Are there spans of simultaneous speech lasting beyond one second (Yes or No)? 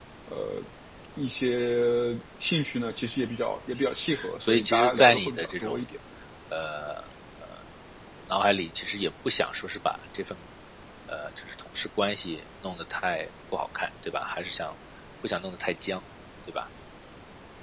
Yes